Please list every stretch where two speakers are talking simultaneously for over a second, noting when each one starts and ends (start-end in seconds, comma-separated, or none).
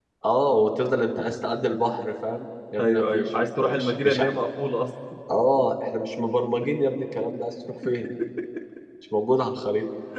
2.8-4.3